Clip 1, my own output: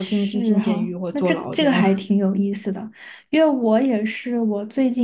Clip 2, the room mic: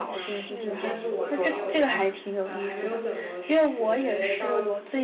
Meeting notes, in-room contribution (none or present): present